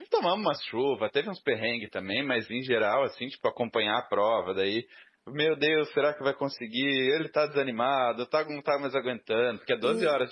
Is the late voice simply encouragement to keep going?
No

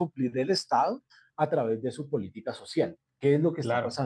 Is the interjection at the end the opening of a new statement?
No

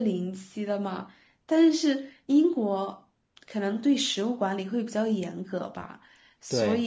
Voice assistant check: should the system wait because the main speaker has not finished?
Yes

